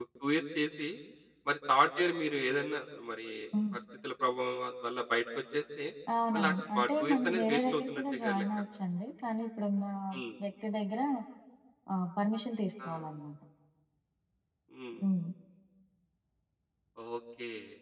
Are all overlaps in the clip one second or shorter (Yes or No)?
No